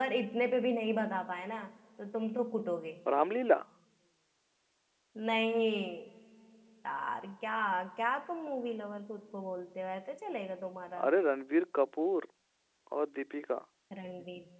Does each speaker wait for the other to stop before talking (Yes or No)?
Yes